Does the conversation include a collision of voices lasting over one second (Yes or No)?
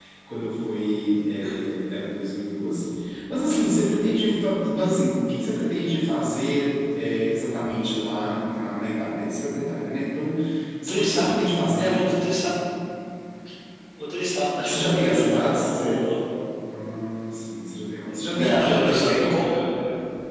Yes